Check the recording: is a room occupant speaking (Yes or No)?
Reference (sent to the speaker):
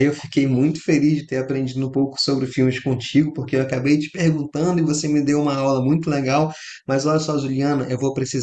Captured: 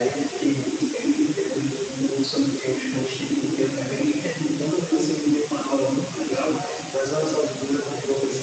No